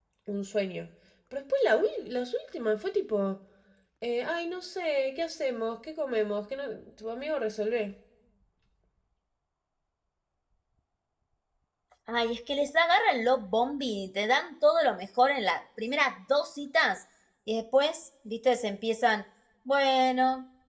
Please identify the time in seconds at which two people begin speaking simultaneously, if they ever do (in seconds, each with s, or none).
none